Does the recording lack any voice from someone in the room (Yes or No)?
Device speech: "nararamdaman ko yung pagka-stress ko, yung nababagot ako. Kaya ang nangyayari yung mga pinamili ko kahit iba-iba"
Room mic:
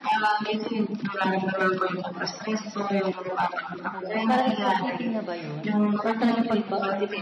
No